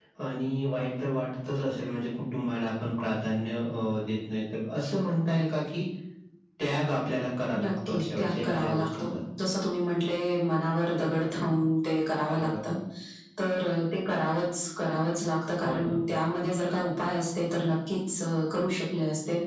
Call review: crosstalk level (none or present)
present